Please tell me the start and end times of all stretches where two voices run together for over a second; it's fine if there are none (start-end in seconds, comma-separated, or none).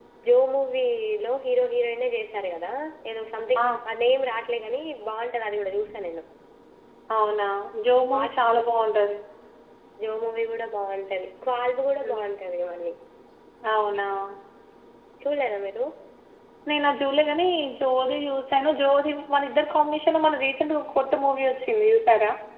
none